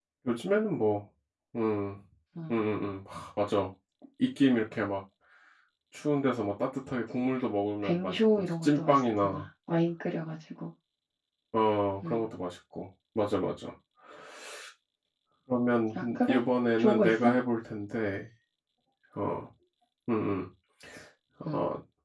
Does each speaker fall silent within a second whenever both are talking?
No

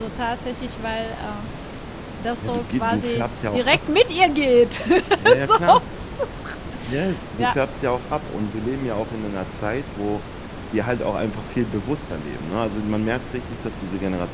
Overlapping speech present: Yes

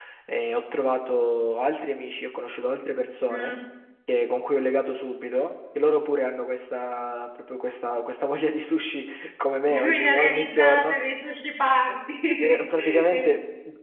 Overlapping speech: Yes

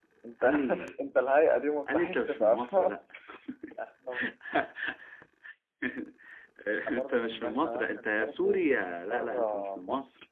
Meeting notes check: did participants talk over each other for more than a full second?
Yes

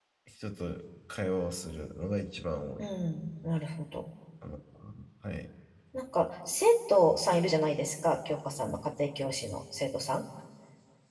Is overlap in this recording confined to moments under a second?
Yes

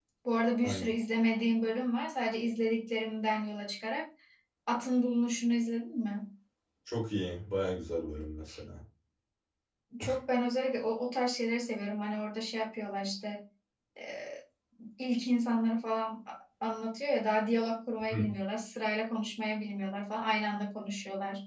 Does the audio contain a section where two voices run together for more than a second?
No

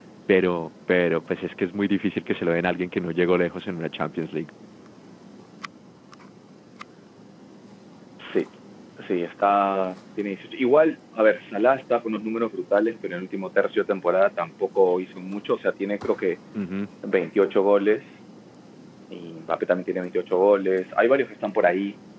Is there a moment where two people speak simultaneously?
No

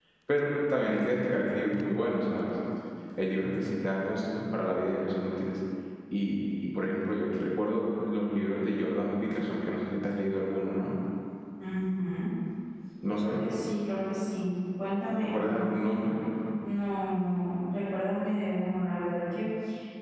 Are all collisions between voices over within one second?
Yes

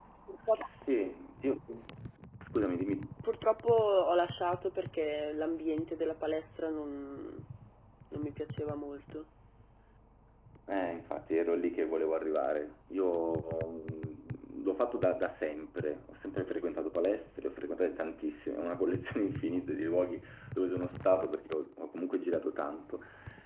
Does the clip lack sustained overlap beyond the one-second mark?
Yes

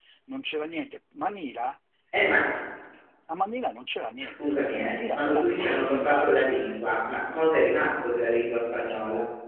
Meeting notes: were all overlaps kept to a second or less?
No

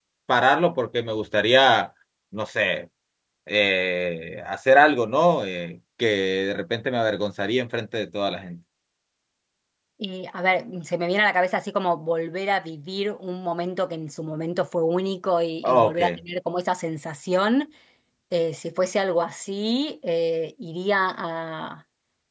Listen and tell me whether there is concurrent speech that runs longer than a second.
No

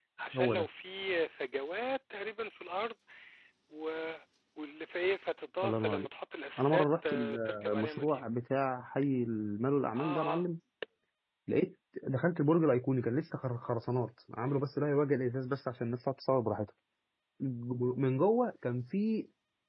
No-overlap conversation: No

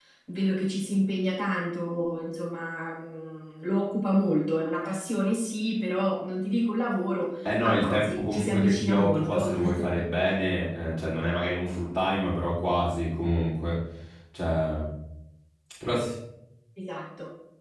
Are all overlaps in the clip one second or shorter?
No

